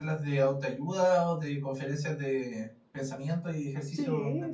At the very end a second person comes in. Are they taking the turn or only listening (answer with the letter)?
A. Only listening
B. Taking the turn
B